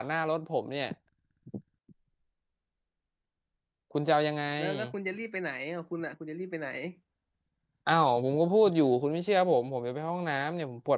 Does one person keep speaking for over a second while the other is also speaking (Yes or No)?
No